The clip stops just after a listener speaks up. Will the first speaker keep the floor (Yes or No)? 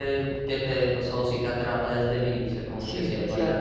No